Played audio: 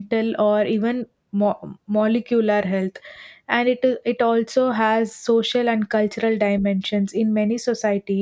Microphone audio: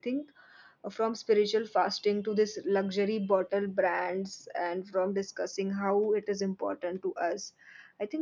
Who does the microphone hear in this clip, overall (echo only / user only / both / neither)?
user only